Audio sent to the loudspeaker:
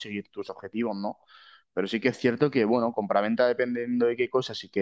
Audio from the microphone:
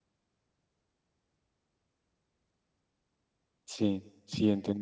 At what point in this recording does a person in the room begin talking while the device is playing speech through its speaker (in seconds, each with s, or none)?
3.6 s